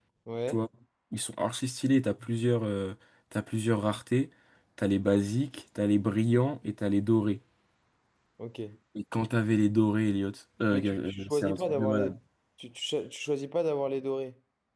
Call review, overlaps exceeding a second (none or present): present